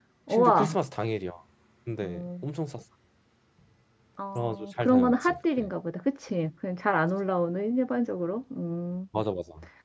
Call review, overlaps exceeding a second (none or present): present